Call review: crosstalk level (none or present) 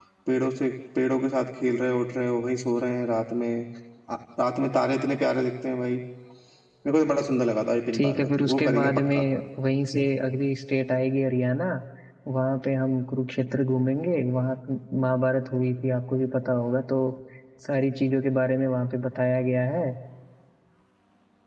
present